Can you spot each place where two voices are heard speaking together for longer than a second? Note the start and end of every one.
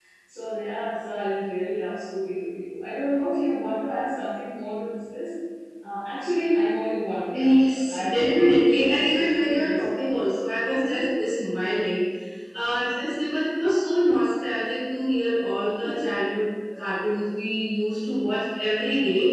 7.3-10.1

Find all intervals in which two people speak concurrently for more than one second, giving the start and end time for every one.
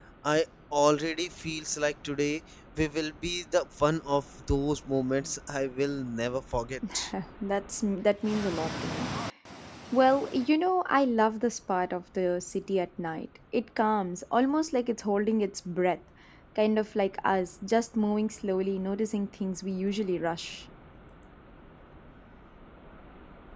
none

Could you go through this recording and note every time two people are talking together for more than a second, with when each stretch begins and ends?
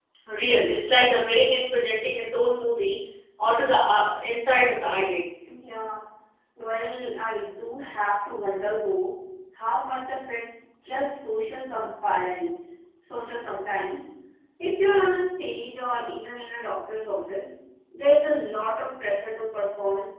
none

